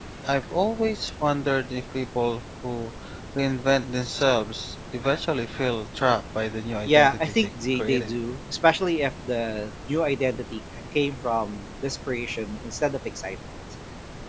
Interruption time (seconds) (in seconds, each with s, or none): 6.8 s